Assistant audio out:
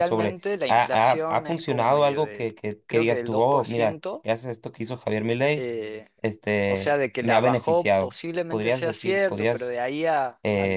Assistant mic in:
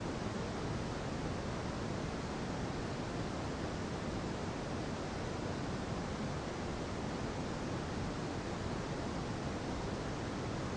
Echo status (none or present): none